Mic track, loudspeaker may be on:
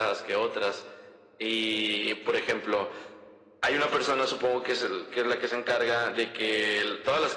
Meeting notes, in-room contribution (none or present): none